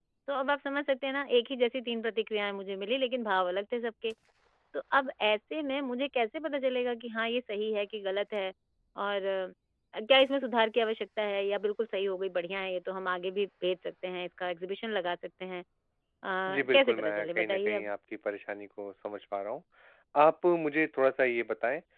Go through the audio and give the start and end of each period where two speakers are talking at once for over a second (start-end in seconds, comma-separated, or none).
16.5-17.9